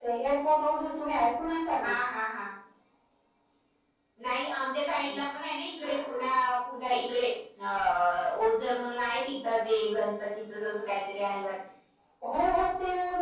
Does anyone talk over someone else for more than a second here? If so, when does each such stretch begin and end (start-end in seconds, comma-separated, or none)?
none